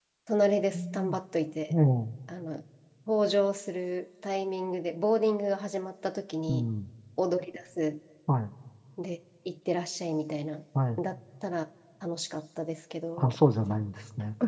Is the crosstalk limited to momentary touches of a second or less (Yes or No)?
Yes